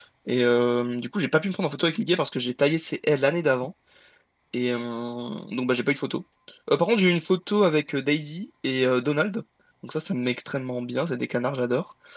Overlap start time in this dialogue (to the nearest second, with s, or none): none